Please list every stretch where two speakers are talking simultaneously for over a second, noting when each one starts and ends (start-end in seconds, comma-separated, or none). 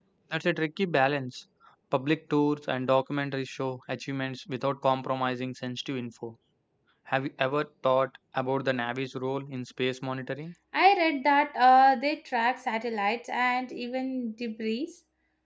none